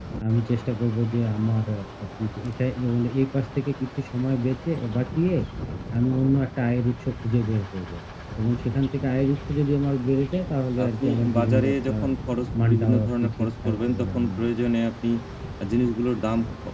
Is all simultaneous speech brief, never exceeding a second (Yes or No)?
No